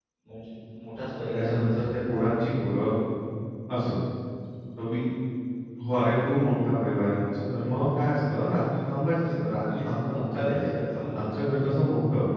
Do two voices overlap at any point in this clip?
Yes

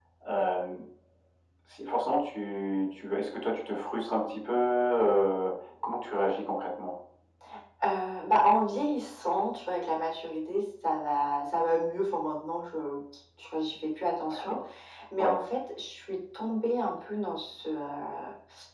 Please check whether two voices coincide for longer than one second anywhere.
No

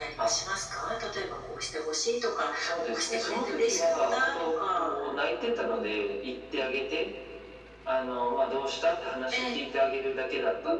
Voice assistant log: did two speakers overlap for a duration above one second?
Yes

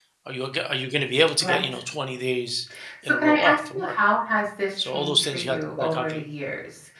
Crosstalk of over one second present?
Yes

